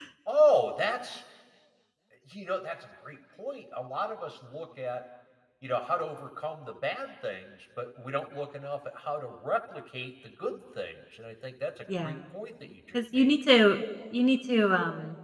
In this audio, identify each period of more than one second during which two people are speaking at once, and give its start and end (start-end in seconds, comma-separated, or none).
none